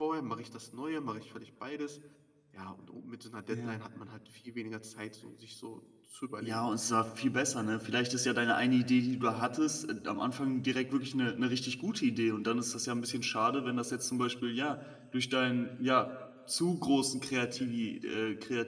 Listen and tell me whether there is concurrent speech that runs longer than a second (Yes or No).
No